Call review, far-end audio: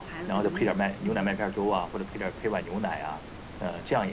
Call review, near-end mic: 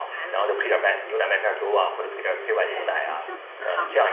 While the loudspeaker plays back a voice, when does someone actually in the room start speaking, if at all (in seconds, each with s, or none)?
0.8 s